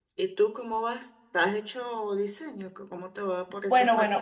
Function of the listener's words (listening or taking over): taking over